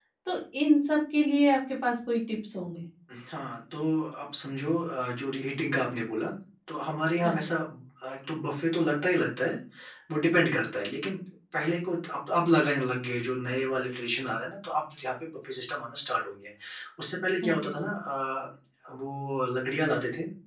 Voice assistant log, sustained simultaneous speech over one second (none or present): none